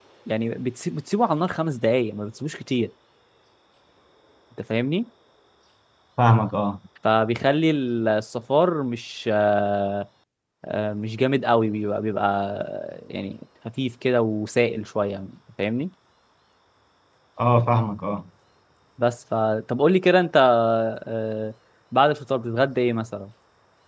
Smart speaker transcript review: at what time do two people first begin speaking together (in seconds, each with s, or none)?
none